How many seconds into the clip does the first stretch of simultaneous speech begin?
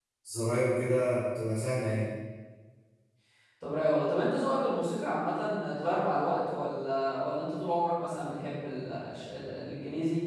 none

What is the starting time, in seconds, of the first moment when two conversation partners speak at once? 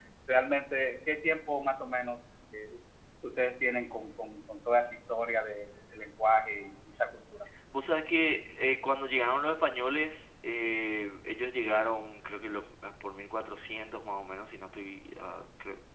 none

